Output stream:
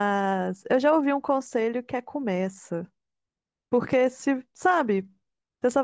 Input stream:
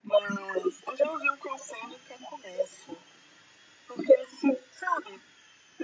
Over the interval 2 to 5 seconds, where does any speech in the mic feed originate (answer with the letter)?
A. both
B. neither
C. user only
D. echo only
D